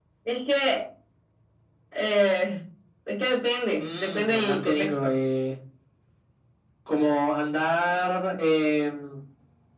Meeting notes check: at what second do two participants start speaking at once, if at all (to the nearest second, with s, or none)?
4 s